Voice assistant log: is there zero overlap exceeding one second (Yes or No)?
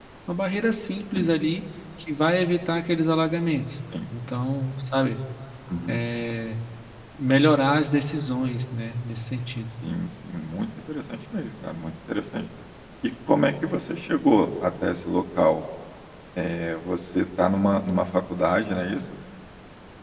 Yes